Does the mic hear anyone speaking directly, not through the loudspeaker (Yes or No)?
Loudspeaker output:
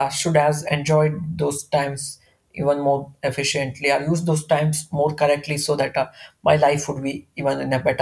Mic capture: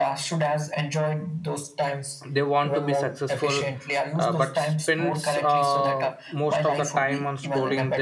Yes